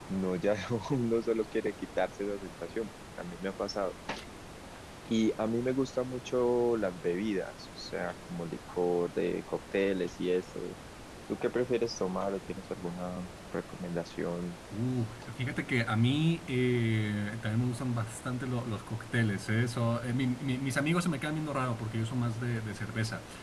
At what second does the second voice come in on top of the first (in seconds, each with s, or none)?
none